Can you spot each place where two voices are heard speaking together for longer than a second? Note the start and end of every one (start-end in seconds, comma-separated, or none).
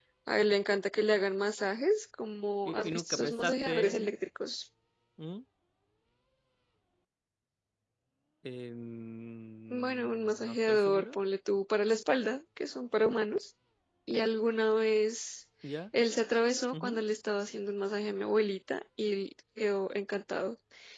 2.6-4.1, 9.7-11.2